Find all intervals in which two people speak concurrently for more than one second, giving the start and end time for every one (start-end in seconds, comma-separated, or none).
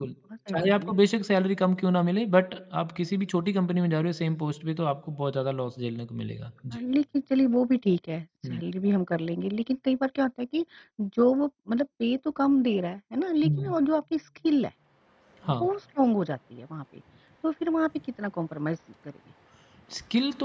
none